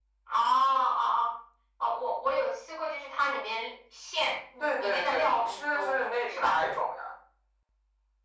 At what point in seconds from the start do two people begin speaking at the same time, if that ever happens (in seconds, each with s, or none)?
4.6 s